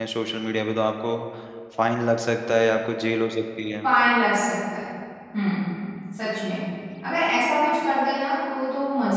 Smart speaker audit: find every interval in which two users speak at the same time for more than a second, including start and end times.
none

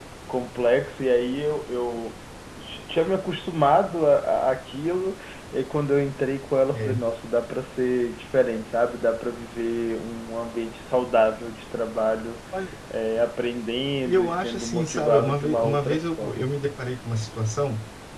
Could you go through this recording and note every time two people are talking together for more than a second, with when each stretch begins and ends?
14.1-16.5

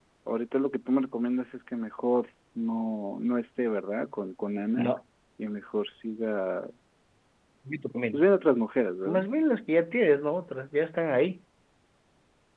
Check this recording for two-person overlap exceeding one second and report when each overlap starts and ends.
none

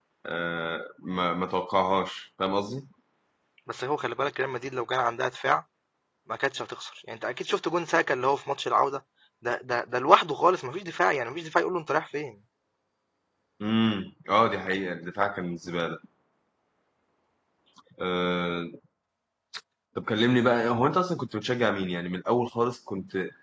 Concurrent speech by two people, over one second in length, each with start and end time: none

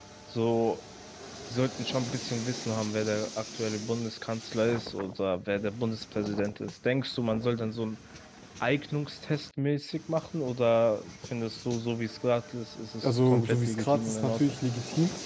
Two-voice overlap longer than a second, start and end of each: 13.0-14.6

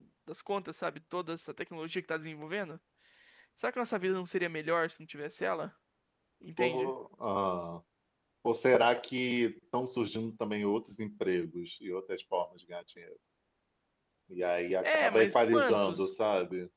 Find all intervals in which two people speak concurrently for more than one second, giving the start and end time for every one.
14.8-16.1

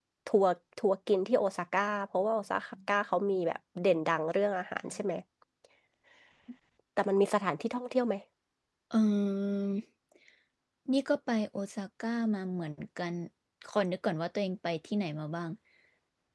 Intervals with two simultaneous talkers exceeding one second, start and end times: none

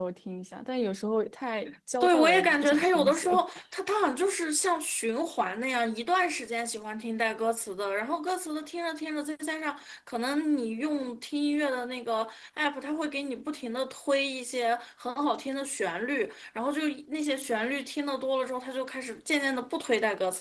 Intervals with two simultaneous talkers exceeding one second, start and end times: 2.0-3.4

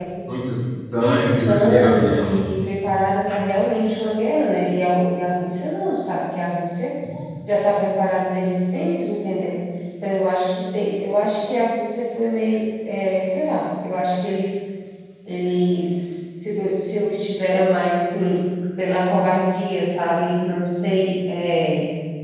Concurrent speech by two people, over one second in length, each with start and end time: 1.0-2.4

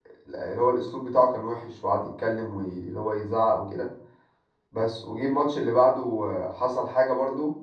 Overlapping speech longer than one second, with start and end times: none

